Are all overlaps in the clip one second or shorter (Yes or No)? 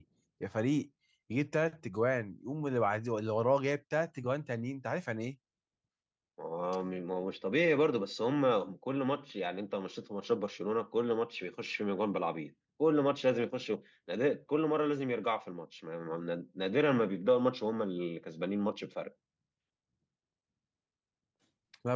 Yes